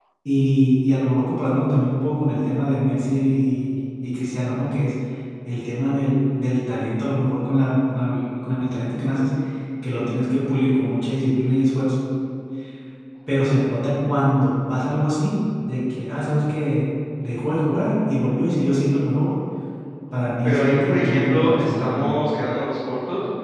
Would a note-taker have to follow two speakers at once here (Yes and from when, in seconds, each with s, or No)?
Yes, from 20.4 s